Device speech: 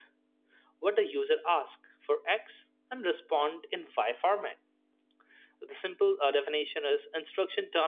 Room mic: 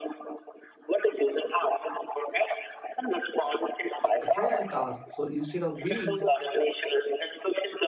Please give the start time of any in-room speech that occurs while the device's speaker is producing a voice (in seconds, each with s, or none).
4.2 s